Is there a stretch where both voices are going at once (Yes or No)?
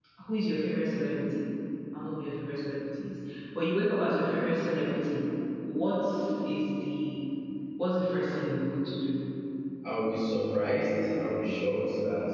No